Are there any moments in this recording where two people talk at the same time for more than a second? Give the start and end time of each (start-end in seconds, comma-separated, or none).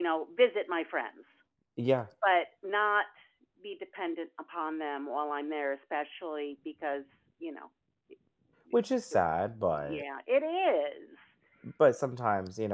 none